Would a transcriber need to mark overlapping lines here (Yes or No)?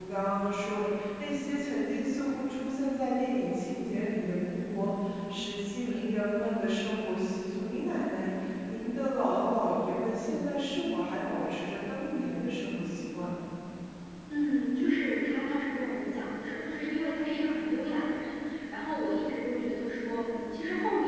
No